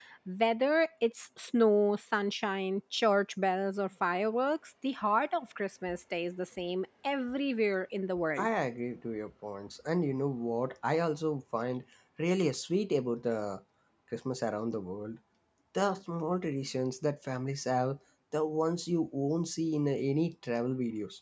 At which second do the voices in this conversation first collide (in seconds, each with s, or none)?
none